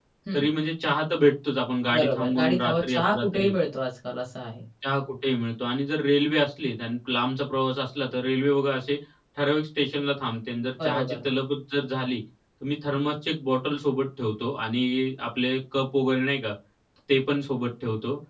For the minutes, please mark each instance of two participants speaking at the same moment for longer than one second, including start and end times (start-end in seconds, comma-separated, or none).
1.9-3.5